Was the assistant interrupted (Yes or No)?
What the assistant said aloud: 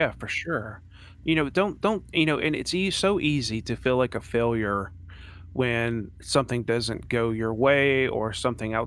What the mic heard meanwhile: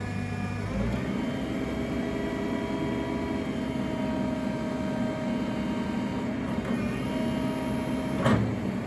No